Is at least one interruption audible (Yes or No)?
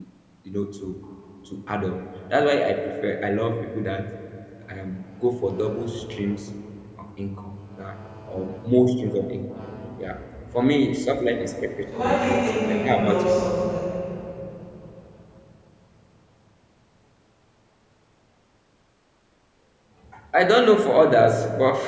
Yes